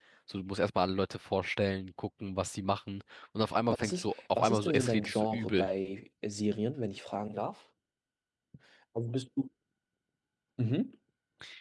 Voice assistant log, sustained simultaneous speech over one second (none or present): present